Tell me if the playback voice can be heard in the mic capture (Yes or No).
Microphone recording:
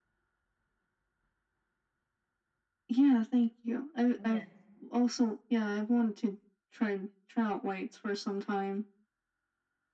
Yes